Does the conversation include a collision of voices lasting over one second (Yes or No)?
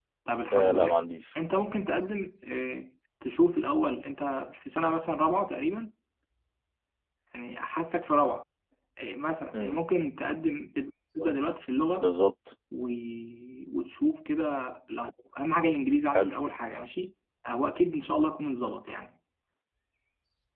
No